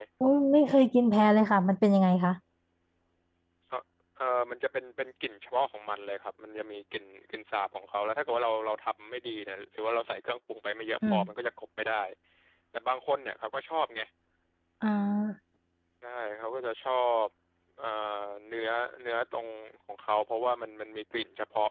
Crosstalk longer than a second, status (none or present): none